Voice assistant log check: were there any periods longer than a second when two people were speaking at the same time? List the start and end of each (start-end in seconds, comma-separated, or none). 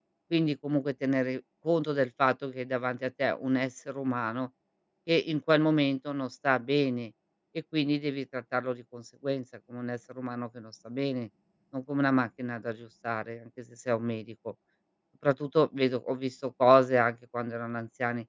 none